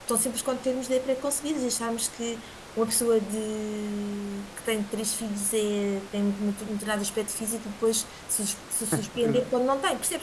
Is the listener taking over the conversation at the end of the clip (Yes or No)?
No